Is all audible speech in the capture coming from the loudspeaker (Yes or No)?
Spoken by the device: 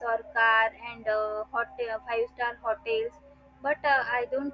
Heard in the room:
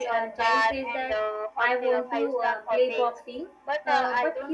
No